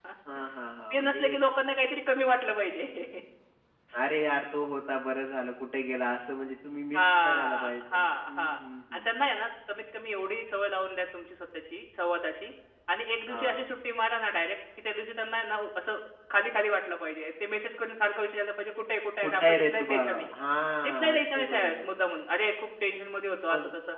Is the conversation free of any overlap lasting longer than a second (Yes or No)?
No